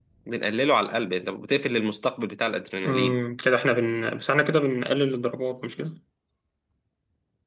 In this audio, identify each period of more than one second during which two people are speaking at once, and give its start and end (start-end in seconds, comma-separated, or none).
none